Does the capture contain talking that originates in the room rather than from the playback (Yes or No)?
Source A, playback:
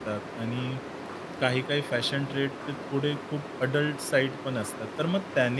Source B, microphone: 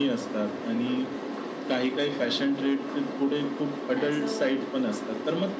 Yes